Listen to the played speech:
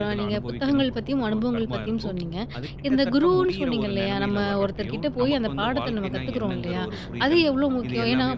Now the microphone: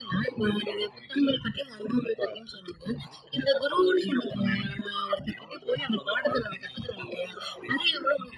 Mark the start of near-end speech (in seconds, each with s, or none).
none